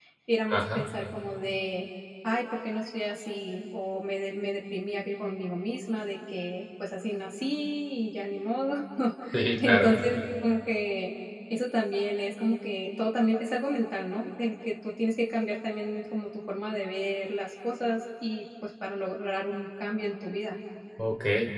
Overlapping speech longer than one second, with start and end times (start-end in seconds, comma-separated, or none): none